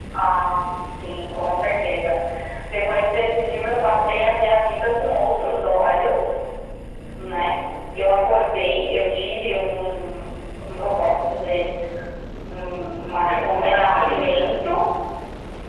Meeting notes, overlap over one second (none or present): present